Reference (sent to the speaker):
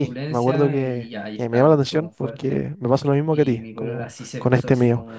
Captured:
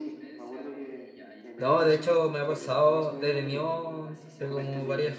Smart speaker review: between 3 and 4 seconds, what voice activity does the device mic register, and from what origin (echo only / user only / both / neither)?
both